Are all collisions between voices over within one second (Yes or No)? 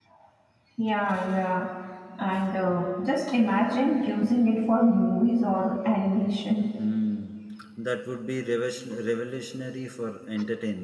Yes